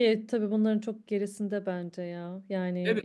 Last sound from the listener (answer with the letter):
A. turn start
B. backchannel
A